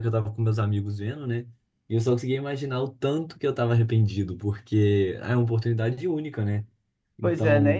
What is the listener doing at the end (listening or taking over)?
taking over